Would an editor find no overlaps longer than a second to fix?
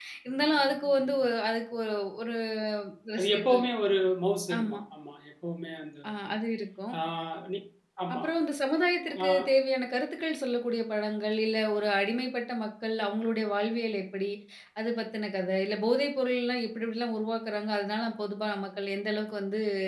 Yes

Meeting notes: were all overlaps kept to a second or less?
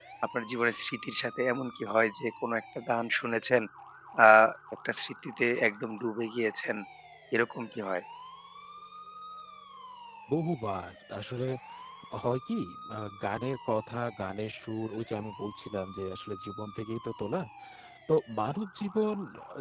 Yes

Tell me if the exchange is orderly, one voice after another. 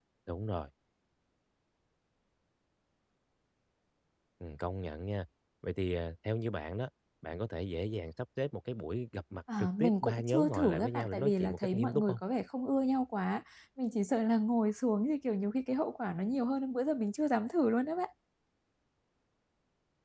No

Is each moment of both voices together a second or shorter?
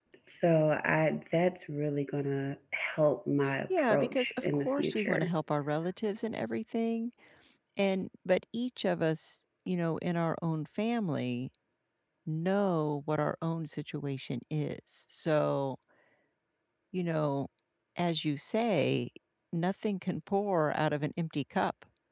No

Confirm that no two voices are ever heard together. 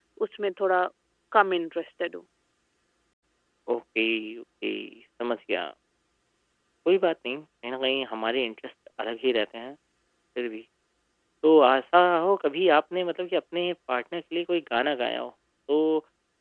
Yes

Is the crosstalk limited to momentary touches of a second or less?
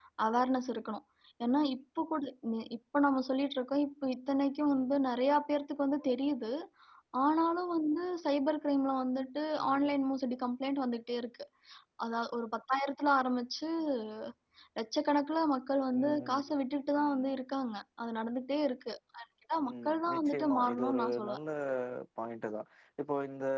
No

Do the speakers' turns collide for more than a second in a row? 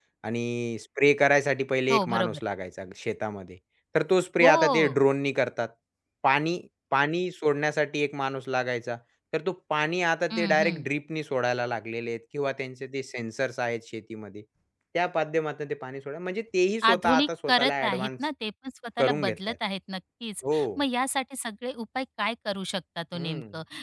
Yes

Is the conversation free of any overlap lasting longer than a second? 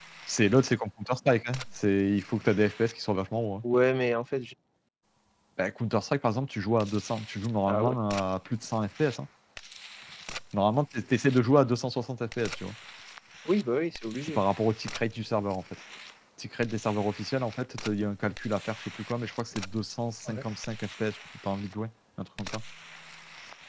Yes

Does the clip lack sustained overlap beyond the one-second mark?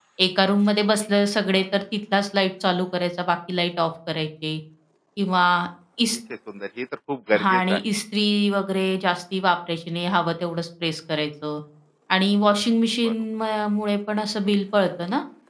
Yes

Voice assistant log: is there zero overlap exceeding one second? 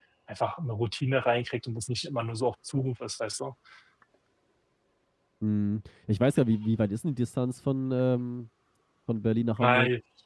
Yes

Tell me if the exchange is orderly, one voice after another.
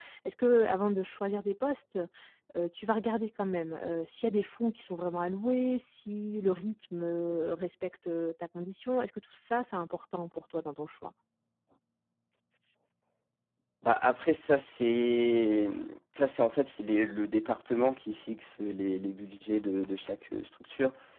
Yes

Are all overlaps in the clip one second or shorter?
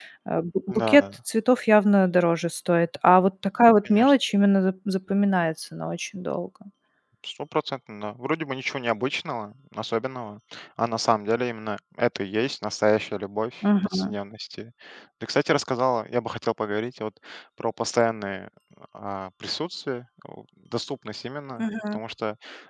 Yes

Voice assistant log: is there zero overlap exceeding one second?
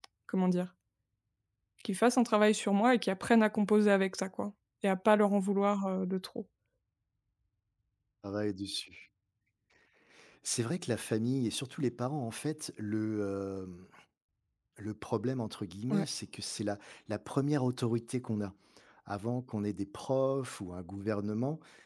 Yes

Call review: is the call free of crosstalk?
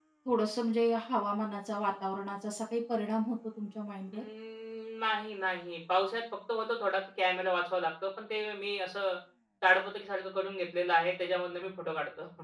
Yes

